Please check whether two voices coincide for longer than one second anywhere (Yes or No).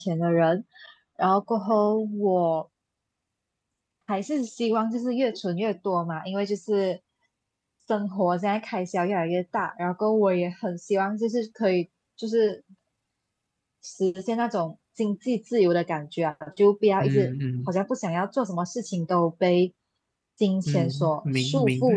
Yes